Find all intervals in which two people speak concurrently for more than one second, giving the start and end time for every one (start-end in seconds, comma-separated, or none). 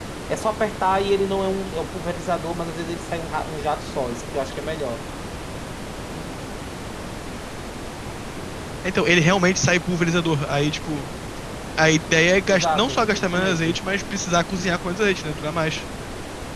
12.5-13.8